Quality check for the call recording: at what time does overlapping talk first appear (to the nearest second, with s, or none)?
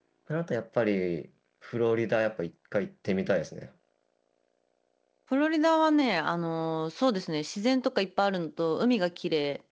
none